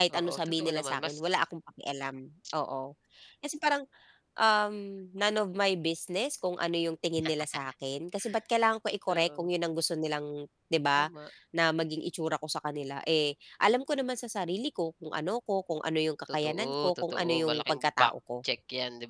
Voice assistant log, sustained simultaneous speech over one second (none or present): present